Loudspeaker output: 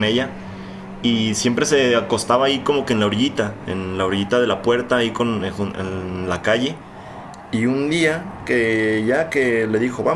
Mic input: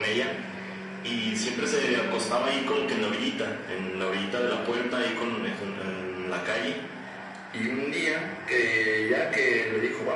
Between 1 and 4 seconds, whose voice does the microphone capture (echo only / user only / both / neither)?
echo only